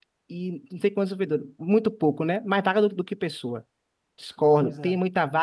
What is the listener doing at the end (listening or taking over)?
listening